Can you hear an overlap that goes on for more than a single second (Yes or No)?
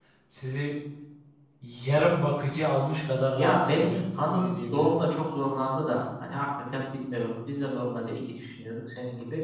Yes